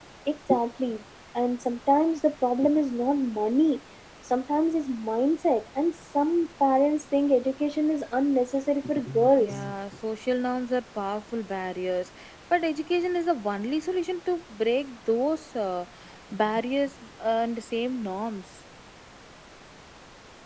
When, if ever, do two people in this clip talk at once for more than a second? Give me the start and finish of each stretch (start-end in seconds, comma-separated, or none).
none